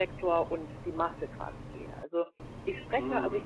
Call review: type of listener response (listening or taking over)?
listening